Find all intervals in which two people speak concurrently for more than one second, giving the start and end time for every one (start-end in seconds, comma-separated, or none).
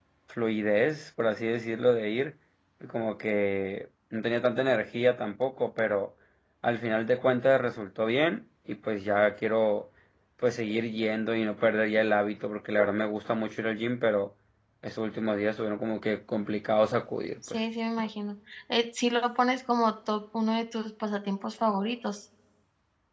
none